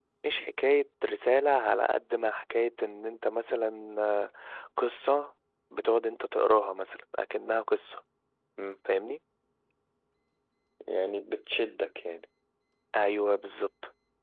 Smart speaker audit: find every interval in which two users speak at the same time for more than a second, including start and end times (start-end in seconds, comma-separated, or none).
none